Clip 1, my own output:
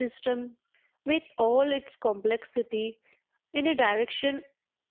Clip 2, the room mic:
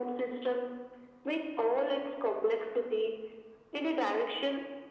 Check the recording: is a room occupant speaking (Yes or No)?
No